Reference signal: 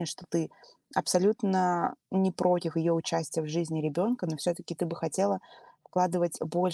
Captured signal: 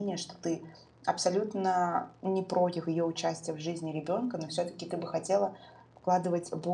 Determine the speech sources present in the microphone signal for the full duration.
echo only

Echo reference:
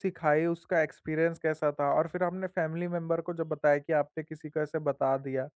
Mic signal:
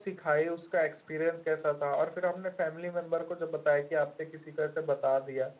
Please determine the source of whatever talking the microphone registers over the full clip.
echo only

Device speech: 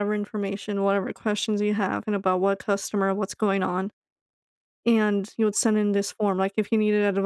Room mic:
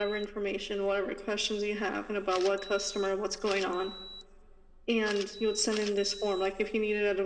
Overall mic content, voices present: echo only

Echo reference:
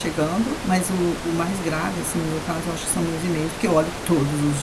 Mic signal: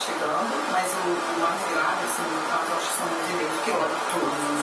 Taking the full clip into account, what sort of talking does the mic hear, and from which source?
echo only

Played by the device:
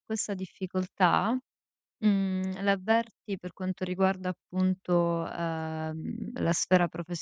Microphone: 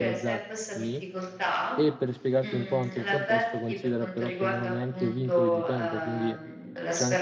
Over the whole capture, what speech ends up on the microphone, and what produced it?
both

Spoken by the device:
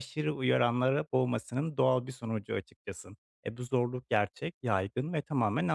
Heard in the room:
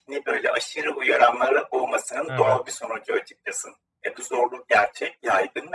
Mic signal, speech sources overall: both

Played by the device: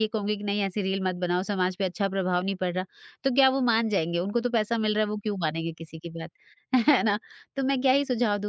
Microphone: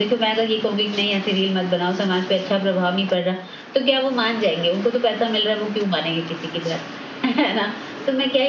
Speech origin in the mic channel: echo only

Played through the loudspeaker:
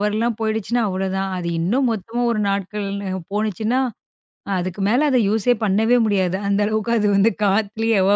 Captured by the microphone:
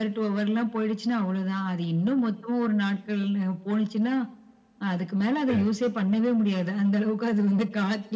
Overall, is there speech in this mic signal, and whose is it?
both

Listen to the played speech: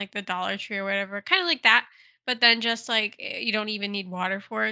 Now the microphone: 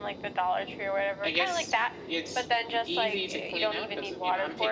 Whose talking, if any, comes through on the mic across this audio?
both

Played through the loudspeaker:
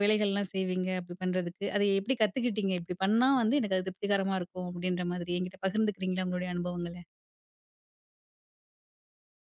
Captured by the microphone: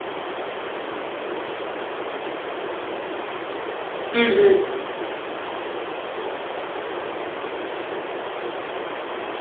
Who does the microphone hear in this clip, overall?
user only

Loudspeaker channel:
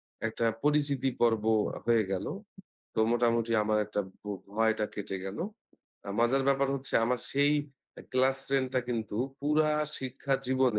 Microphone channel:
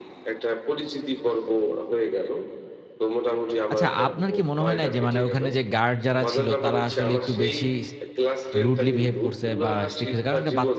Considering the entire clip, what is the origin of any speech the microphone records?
both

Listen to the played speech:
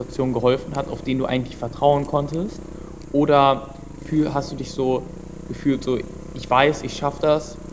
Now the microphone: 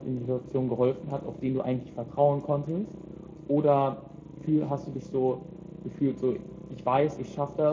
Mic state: echo only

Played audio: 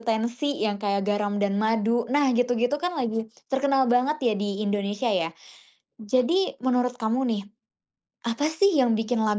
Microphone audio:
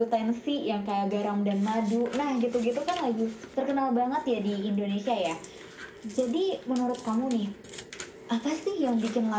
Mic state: echo only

